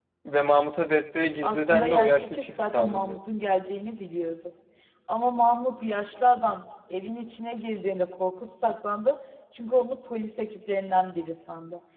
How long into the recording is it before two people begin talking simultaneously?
1.4 s

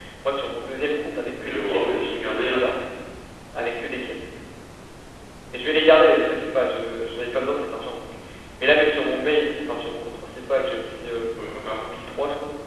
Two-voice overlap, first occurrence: 1.4 s

